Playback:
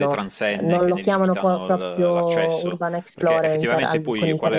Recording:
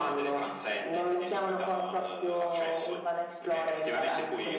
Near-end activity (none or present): none